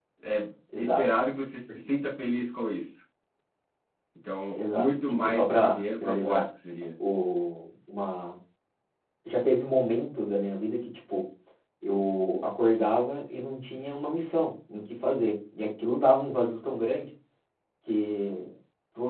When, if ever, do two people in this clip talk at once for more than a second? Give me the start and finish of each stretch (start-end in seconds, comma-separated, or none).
4.5-6.4